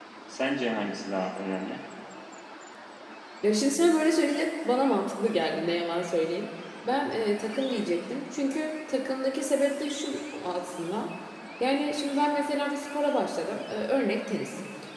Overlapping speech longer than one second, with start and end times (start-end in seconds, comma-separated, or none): none